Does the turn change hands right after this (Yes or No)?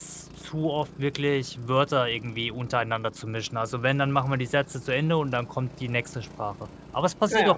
No